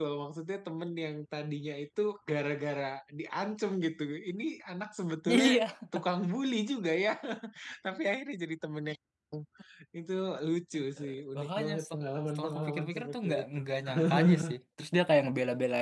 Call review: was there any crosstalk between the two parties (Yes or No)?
Yes